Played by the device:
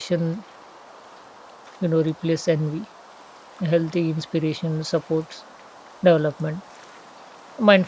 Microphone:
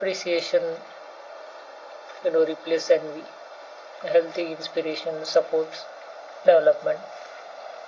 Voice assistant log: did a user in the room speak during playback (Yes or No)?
No